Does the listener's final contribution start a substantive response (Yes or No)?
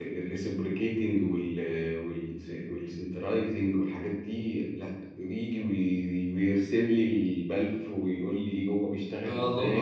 Yes